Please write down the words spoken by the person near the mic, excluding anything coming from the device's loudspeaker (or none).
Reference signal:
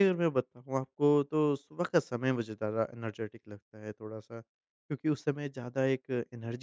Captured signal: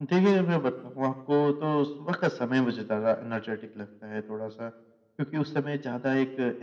none